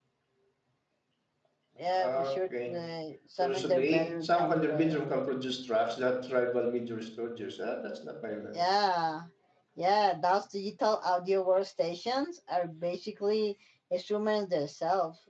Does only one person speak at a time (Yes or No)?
No